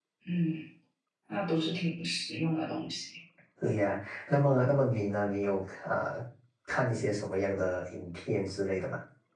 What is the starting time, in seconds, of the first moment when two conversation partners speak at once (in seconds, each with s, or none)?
none